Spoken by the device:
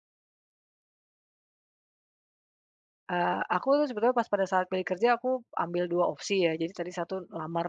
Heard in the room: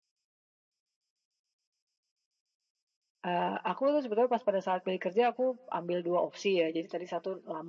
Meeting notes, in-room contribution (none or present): none